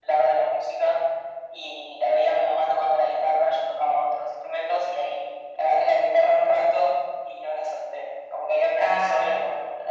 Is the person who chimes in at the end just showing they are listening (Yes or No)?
Yes